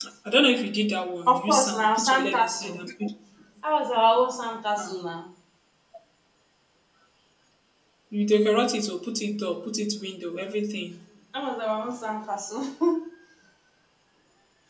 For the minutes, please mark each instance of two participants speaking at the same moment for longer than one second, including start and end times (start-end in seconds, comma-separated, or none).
1.3-2.8